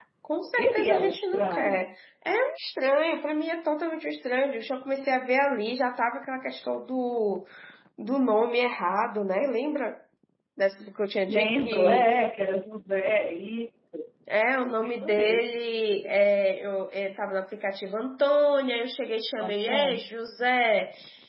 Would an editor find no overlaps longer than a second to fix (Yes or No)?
No